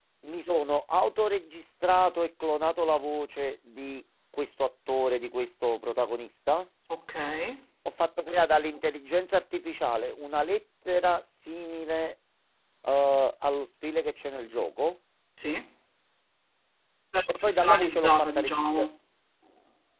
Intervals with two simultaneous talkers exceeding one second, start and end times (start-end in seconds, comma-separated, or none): 17.4-18.9